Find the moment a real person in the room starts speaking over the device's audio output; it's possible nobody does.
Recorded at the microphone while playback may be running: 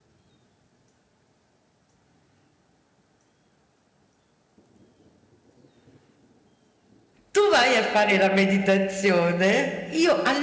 7 s

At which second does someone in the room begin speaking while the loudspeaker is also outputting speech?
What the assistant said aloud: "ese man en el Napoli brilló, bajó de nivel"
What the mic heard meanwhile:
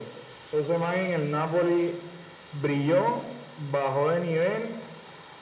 none

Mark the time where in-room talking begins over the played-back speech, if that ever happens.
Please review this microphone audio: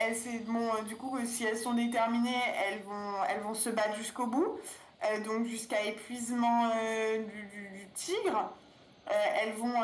none

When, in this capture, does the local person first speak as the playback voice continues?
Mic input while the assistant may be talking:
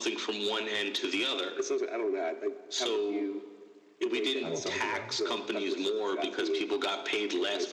4 s

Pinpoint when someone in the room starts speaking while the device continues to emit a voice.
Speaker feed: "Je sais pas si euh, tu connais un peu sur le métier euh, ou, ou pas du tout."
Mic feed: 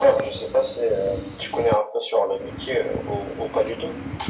none

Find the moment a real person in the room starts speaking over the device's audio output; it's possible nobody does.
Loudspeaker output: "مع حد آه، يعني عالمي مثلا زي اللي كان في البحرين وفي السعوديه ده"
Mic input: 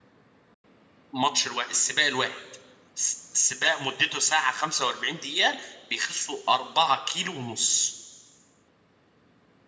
1 s

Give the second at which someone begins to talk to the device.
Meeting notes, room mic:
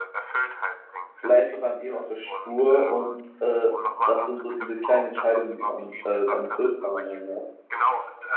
1 s

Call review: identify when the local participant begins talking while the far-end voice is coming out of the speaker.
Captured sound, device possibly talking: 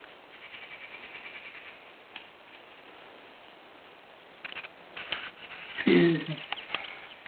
6 s

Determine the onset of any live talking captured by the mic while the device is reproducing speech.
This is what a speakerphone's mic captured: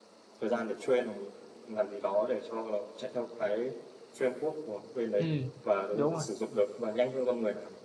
5 s

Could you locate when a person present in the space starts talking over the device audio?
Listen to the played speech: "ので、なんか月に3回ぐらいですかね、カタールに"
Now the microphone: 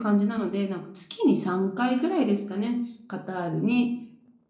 none

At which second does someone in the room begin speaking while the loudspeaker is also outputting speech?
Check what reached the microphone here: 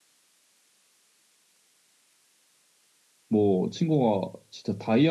3 s

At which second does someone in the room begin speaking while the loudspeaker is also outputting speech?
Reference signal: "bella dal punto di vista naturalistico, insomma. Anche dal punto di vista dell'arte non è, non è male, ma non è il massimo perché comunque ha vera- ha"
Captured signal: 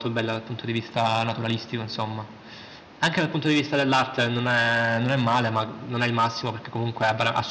none

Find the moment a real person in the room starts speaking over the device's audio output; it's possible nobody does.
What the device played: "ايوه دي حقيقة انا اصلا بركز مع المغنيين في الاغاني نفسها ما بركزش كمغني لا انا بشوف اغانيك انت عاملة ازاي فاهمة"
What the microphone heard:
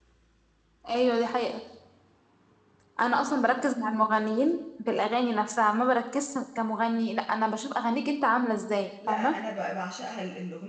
9 s

